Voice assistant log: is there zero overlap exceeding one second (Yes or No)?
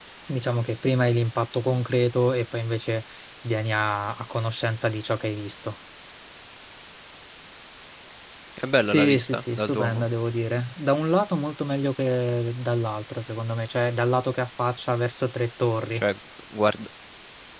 No